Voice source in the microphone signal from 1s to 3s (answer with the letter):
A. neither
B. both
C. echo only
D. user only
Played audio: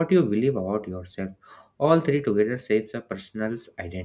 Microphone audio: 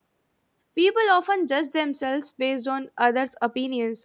D